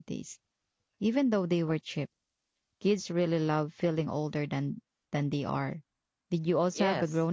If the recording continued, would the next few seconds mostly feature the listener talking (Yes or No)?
Yes